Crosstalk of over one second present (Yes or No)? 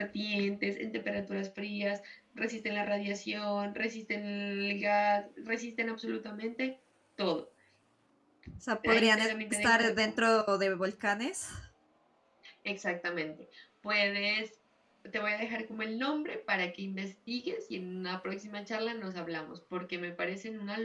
Yes